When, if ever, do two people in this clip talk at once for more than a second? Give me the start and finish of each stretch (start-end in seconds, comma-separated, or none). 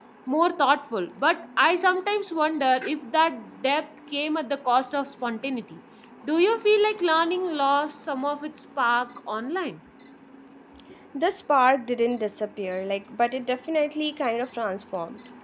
none